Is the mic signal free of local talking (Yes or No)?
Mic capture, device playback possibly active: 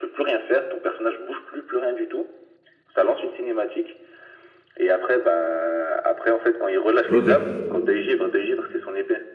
No